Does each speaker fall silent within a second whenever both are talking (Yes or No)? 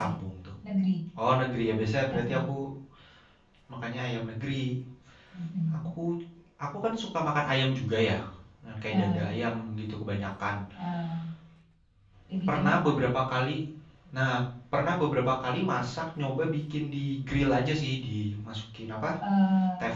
Yes